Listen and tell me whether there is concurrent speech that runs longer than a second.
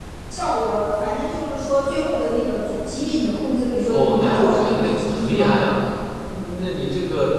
Yes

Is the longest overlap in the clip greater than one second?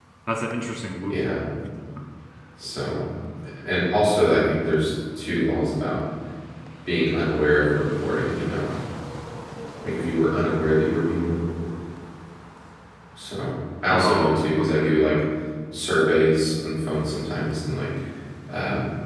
Yes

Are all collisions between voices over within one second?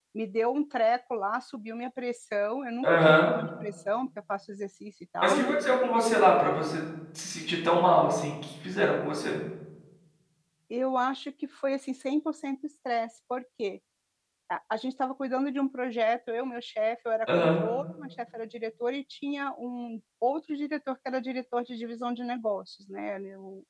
Yes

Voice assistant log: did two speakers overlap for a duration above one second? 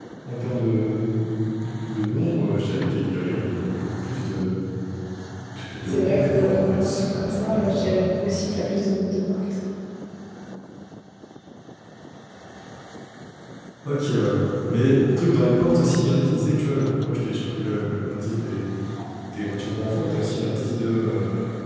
Yes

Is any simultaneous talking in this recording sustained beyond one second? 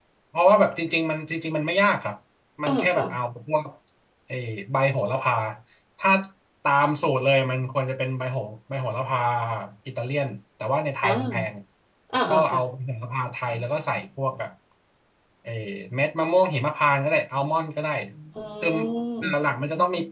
No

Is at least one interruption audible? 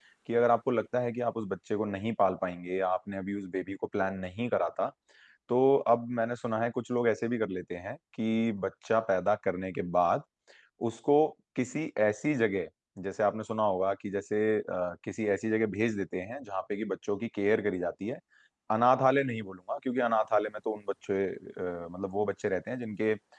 No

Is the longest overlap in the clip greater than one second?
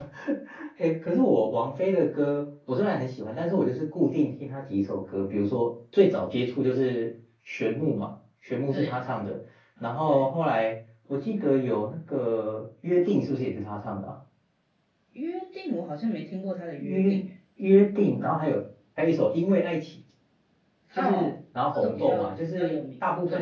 Yes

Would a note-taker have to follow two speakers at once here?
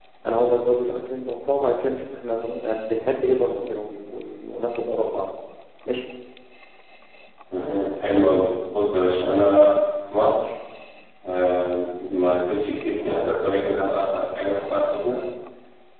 No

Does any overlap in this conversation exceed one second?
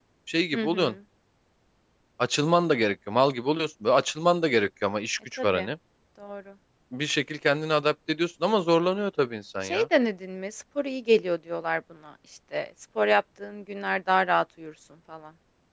No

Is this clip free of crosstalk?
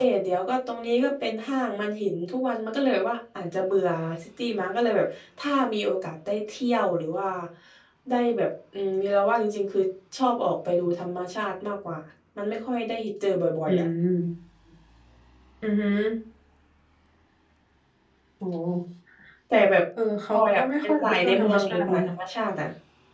No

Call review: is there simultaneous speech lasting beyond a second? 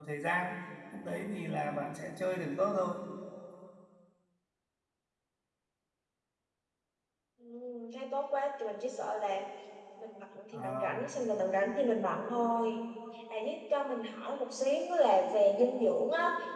No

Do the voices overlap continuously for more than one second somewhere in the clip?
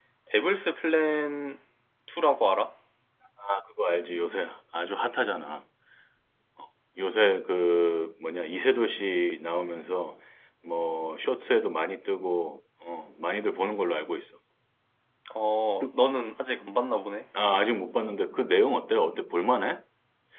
No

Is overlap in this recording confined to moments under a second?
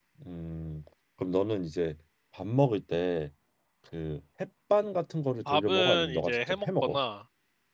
No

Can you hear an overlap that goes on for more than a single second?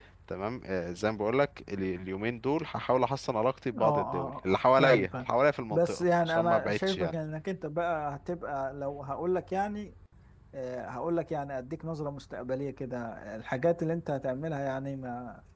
Yes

